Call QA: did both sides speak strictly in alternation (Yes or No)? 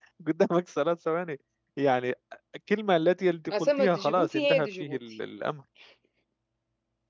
No